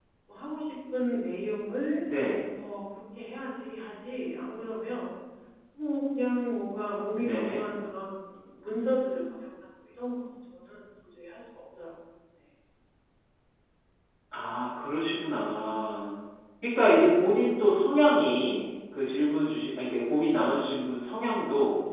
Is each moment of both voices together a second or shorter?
Yes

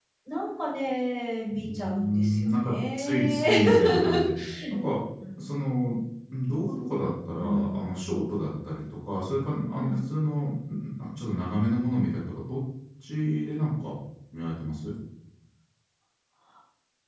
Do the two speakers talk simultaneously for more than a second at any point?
Yes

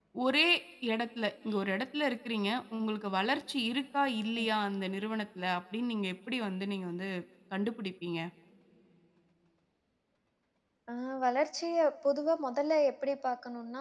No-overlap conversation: Yes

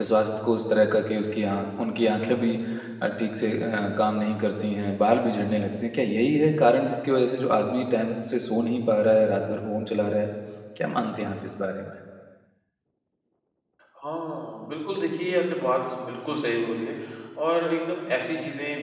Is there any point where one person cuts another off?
No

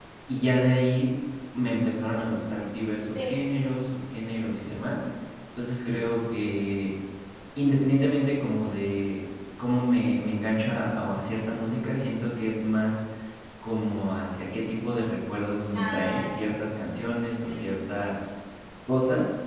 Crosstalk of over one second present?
Yes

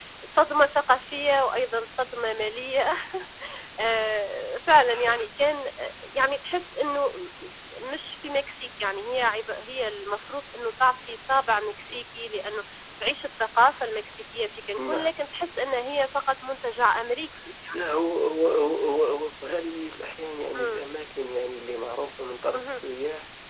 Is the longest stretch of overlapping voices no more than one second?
Yes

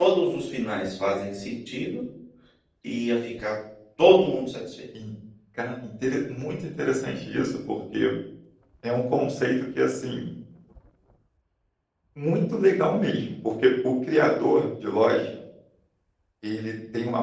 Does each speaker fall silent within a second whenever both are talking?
Yes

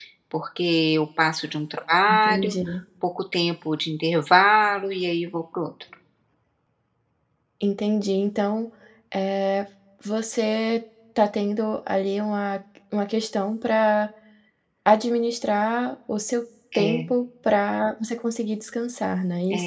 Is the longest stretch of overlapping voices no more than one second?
Yes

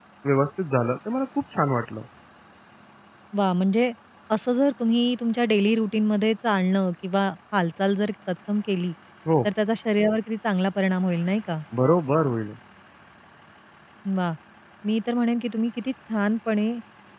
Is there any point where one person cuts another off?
No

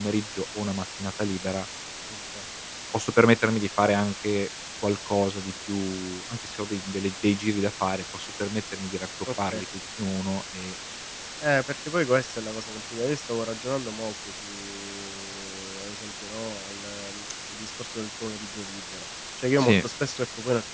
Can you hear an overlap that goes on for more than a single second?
No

